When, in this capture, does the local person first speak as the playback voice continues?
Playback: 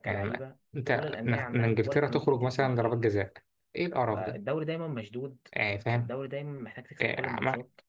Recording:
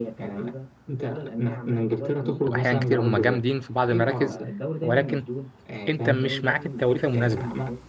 2.5 s

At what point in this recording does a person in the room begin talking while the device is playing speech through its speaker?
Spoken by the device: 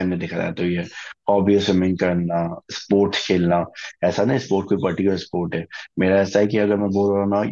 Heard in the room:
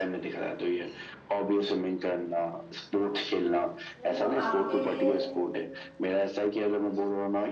4.0 s

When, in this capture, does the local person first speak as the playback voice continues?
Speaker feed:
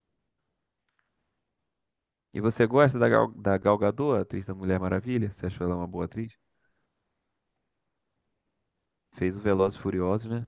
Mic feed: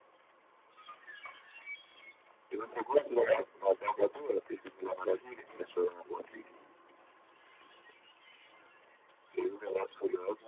none

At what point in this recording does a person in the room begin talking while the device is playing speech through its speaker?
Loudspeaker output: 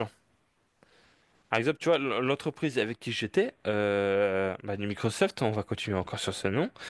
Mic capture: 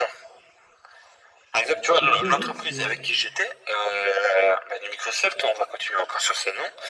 2.0 s

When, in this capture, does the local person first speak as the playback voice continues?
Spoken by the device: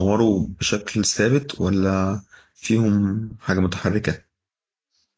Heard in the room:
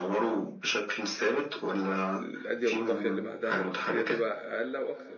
2.1 s

